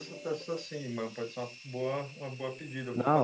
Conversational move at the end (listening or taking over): taking over